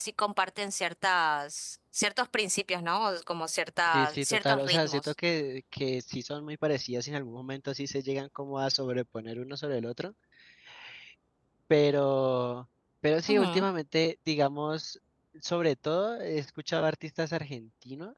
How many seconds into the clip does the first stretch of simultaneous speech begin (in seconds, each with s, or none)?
3.9 s